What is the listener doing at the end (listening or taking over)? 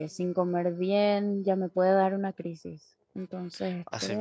taking over